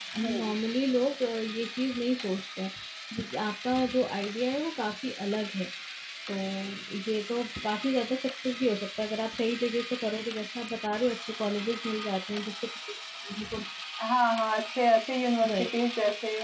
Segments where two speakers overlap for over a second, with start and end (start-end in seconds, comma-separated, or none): none